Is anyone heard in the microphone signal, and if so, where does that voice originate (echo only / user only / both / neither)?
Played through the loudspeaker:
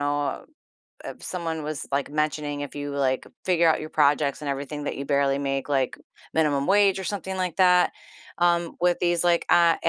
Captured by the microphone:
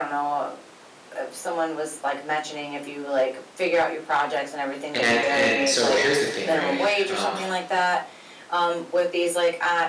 both